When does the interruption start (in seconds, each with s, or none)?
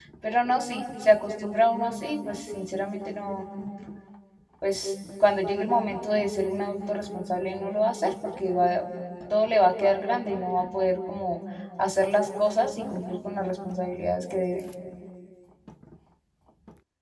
none